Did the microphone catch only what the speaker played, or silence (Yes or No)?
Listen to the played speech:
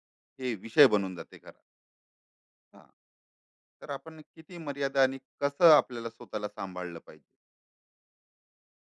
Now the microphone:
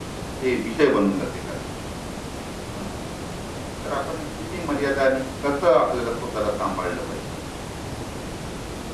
Yes